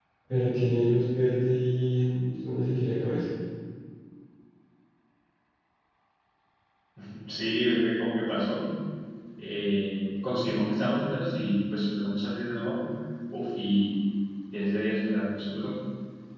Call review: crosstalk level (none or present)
none